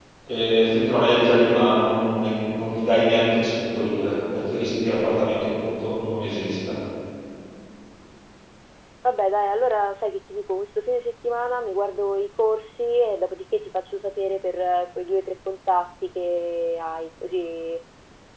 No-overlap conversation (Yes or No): Yes